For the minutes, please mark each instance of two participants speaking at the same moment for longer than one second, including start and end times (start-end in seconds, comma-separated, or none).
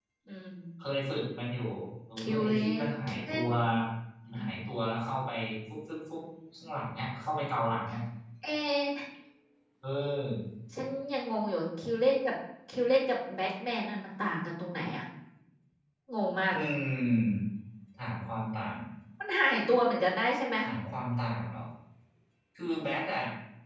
2.2-3.4